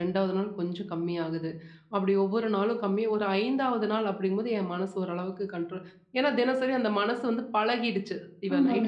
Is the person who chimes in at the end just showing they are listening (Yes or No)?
Yes